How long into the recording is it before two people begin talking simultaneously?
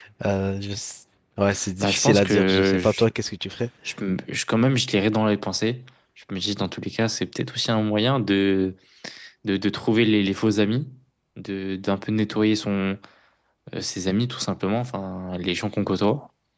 1.8 s

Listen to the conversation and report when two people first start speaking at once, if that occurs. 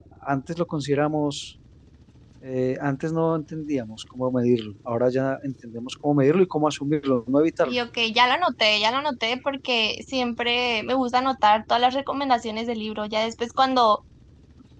none

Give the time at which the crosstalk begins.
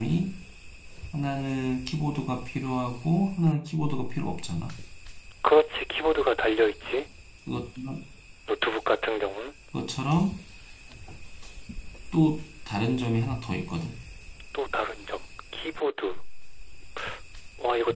none

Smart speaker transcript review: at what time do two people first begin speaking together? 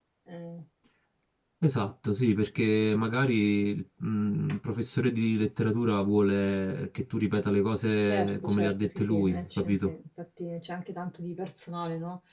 8.0 s

